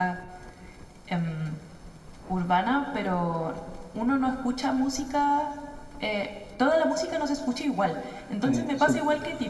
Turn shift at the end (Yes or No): No